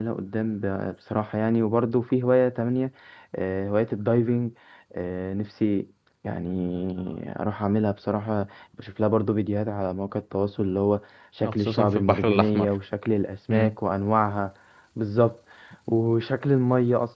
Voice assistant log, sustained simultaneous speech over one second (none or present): present